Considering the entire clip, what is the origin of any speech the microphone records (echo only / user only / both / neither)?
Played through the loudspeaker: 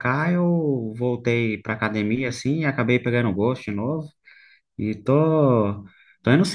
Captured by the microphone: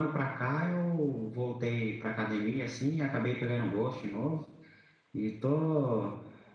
echo only